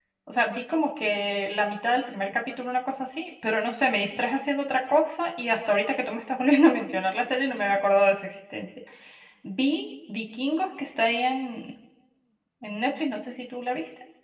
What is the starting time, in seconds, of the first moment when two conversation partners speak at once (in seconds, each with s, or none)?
none